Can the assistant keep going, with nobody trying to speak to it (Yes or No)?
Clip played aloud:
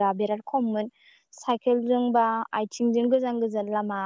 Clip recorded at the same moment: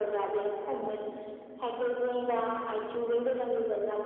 Yes